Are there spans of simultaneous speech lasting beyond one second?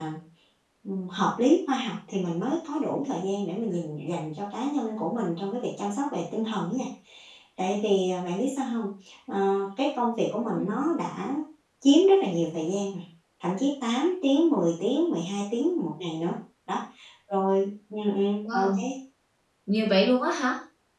No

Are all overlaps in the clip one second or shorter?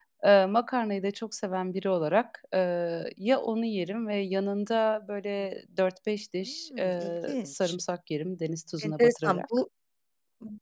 No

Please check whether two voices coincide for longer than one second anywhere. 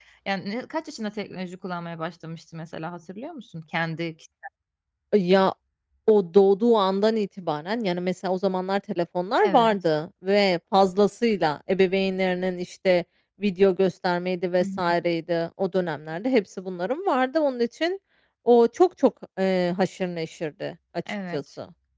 No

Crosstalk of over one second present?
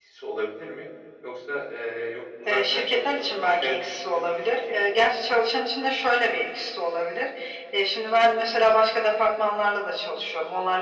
Yes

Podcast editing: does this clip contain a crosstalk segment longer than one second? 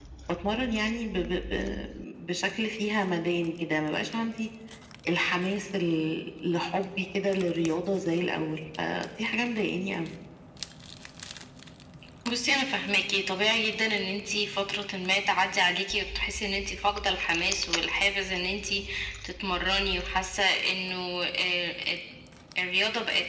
No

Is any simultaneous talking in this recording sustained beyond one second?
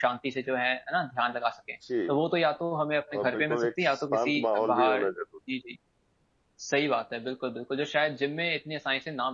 Yes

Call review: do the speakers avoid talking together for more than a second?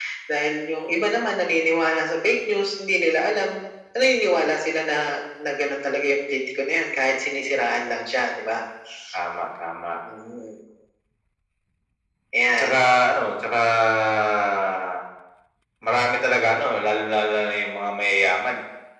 Yes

